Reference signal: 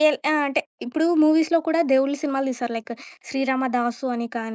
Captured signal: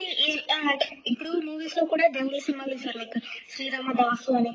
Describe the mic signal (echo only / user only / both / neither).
echo only